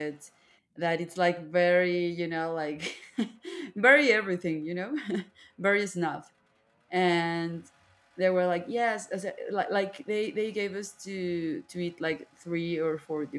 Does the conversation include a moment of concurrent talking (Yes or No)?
No